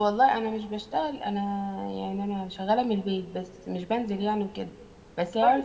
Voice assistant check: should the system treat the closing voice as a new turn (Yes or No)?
No